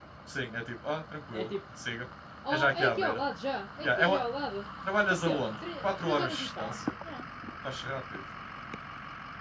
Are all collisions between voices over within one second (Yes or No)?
No